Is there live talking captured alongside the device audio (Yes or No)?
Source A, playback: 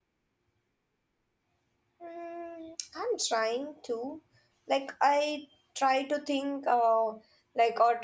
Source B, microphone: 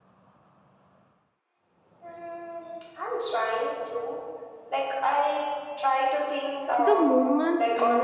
Yes